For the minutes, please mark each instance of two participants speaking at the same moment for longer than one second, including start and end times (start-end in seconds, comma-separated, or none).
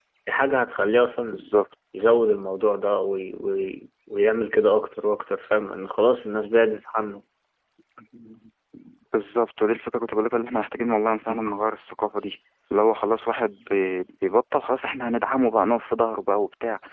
none